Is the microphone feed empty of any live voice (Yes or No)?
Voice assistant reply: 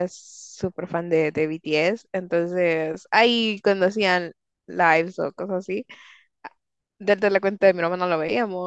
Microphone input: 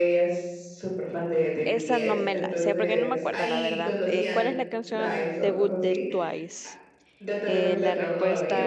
No